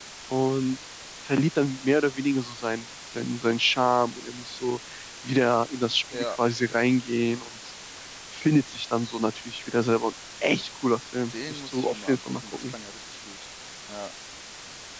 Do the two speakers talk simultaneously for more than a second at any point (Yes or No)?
Yes